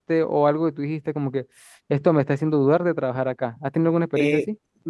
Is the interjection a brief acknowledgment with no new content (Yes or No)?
No